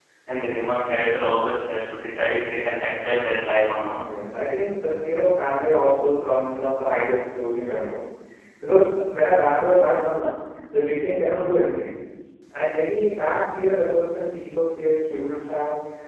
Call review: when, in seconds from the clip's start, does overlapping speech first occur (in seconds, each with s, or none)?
none